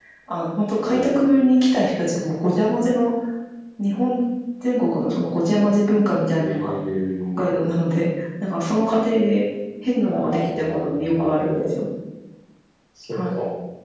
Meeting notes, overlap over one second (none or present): present